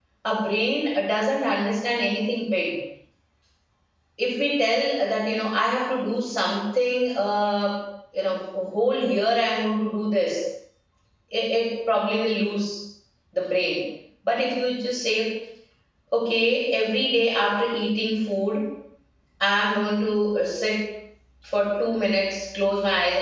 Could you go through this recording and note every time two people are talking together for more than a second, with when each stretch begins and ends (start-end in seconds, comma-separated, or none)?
none